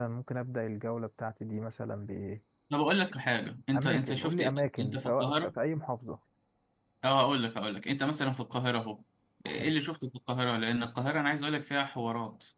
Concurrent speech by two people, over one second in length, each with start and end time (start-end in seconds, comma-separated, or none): 3.8-5.5